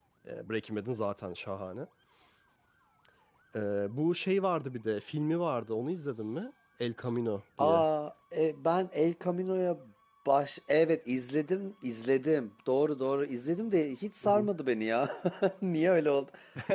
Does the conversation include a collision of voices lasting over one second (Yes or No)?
No